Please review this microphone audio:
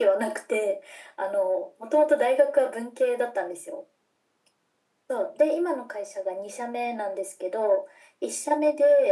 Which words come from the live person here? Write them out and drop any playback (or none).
none